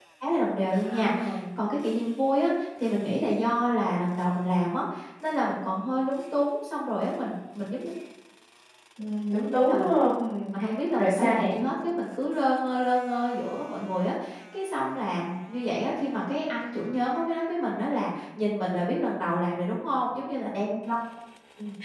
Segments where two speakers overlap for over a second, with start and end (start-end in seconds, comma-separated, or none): none